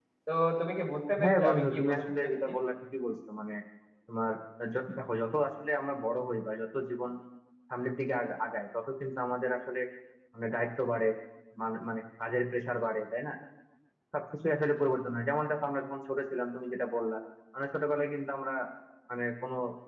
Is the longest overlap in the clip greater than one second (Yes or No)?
Yes